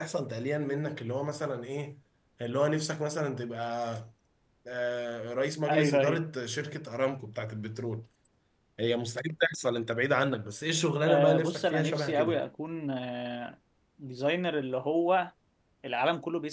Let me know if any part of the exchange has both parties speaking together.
Yes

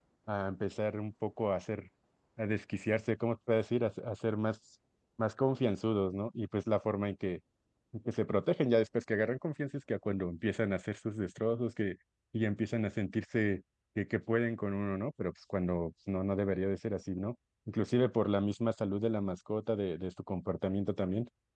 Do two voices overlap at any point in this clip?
No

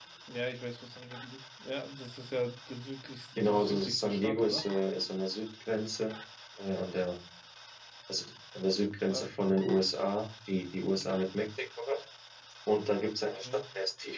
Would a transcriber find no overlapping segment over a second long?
No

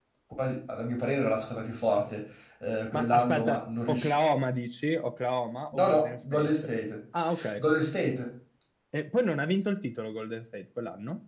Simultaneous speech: Yes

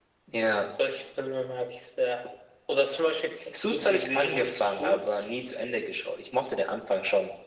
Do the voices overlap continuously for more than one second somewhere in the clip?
Yes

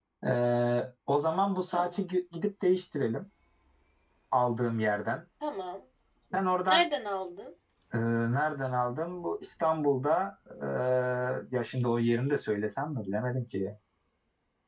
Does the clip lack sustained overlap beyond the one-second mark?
Yes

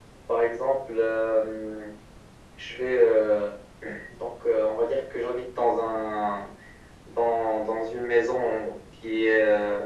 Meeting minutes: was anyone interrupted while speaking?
No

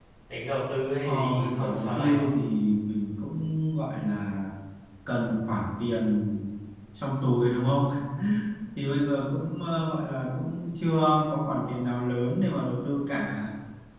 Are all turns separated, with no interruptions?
No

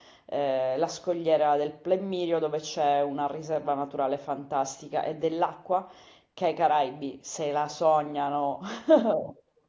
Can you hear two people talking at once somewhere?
No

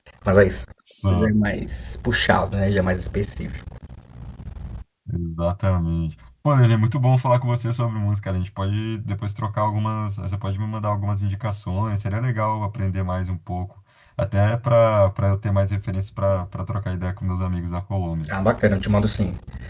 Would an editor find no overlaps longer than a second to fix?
Yes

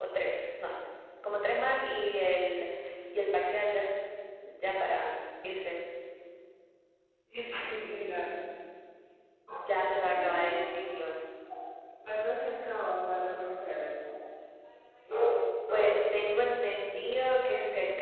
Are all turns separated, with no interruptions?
No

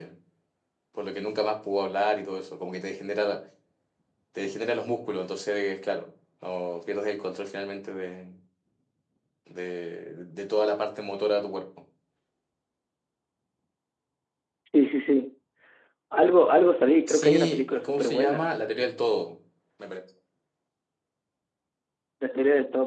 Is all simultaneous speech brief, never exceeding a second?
No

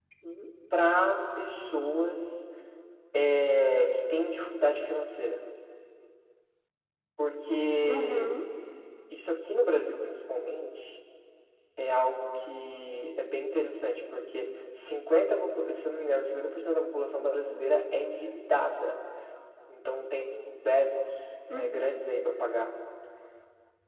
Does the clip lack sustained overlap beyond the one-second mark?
Yes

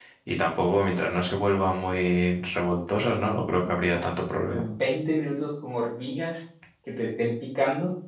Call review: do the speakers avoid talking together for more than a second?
Yes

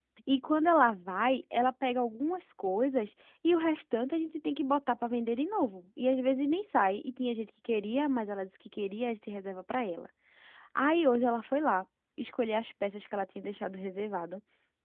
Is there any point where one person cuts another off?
No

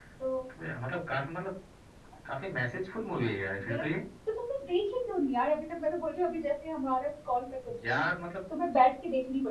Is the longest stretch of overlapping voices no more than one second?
Yes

